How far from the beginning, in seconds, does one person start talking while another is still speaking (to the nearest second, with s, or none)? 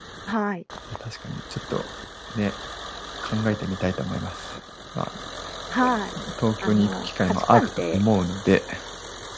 7 s